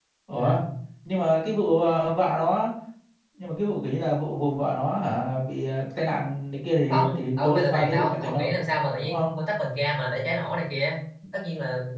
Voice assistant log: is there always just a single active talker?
No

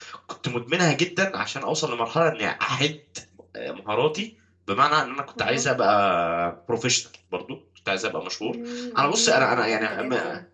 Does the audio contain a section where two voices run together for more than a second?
Yes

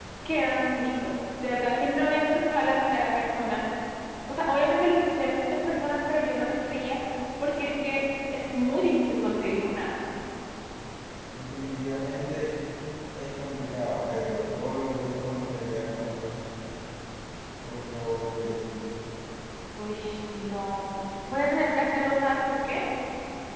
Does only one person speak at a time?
Yes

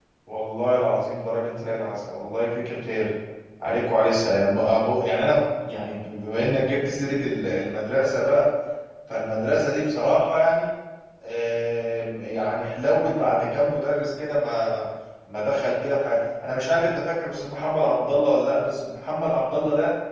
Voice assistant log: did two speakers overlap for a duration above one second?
No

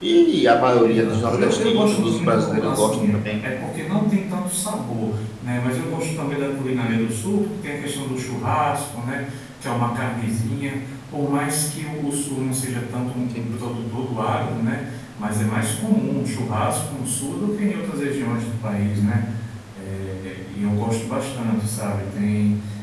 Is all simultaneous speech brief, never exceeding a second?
No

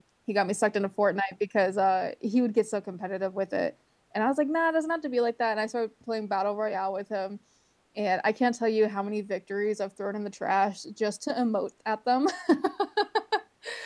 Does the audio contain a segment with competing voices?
No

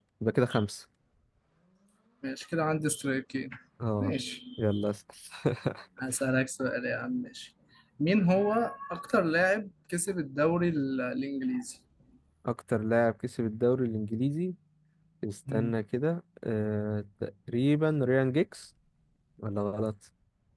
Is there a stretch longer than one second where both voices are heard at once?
No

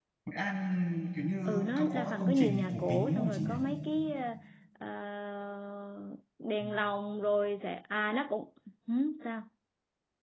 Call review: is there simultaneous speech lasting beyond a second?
Yes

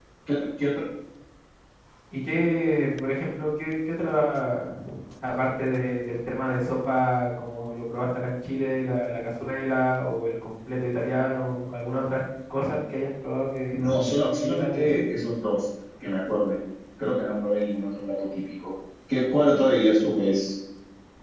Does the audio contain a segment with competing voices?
Yes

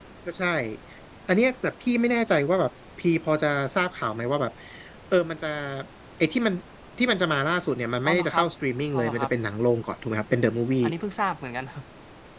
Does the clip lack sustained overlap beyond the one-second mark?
Yes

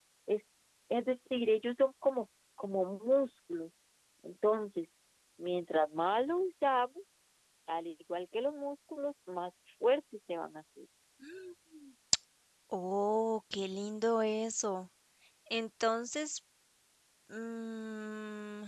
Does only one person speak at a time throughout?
Yes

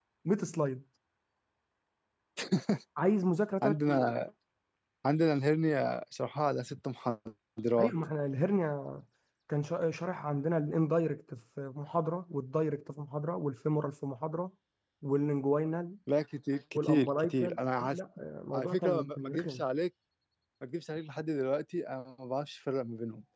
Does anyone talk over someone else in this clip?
Yes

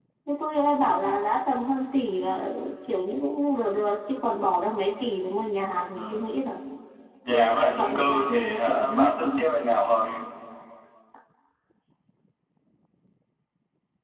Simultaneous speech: Yes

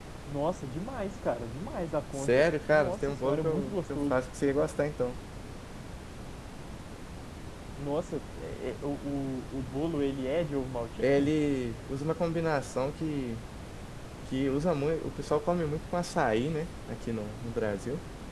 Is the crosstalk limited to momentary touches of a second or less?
No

